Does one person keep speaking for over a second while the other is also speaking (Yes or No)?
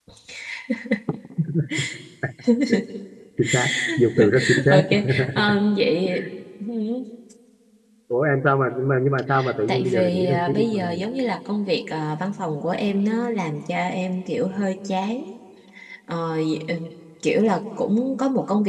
Yes